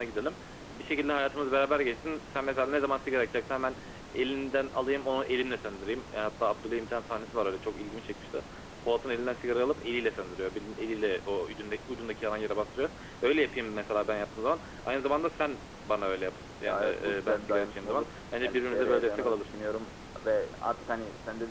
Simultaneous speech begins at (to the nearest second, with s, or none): 17 s